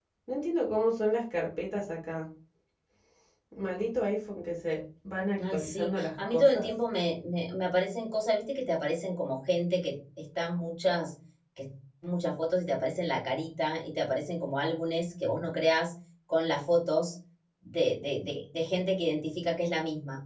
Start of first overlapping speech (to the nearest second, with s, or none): 5 s